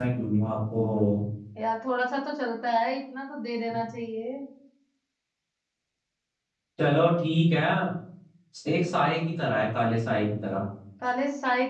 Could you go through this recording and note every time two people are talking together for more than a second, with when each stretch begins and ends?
none

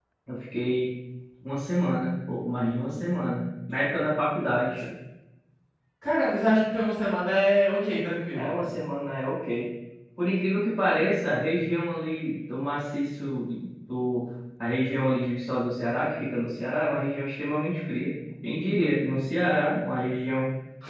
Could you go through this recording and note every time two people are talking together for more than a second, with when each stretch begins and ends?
none

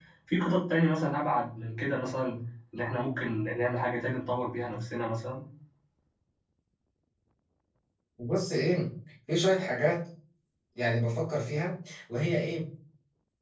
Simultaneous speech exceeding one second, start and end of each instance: none

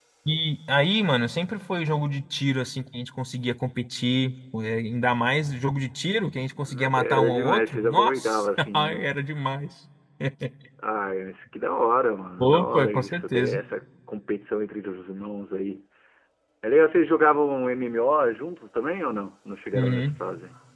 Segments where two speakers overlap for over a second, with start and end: 6.7-9.0, 12.4-13.6

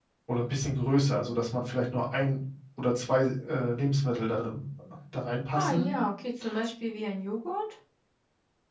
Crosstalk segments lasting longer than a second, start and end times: none

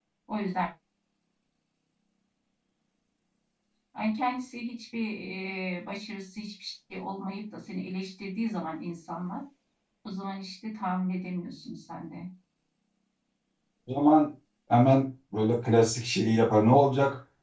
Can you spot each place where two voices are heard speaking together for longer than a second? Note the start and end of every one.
none

